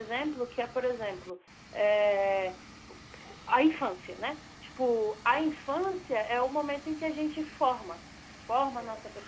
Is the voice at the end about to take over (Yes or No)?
No